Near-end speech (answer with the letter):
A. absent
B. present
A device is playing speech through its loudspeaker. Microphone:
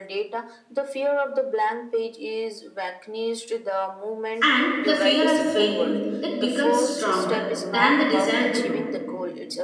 B